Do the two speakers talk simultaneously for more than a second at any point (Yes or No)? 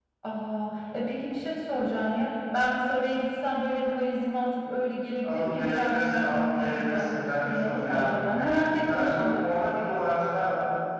Yes